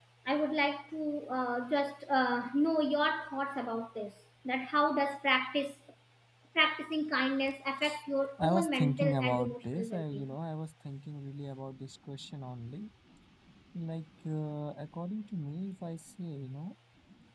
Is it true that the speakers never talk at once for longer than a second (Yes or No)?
No